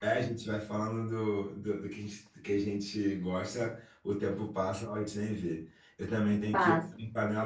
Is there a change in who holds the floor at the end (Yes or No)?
No